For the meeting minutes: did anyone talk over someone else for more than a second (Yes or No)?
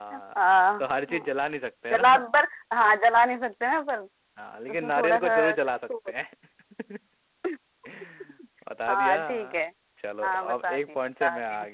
Yes